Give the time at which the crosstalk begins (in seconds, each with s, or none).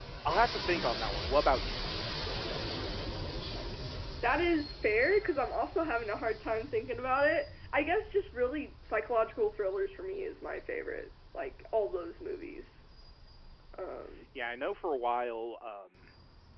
none